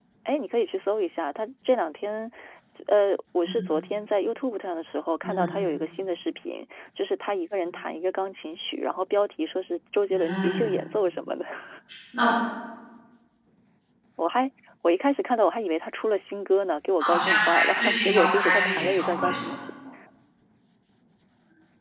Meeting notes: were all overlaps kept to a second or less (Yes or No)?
No